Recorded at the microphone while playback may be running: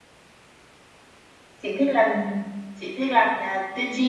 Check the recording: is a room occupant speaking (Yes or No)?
Yes